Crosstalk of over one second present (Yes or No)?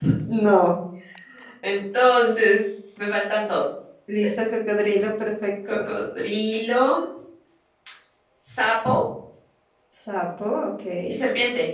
No